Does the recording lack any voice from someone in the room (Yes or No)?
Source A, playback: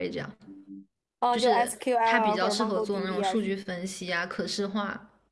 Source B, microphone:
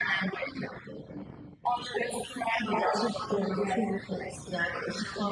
Yes